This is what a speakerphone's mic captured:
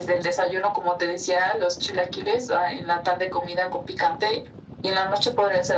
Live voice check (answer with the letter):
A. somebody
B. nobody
B